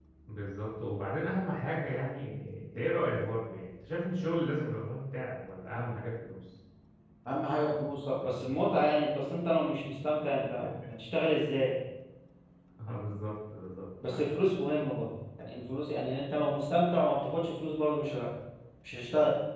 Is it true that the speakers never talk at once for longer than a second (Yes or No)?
Yes